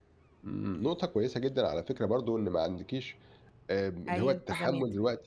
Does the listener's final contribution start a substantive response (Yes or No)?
No